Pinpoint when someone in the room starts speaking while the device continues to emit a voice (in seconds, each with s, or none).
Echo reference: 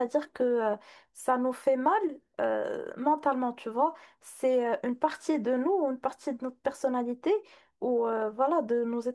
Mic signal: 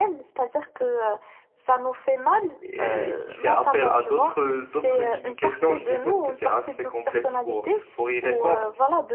2.6 s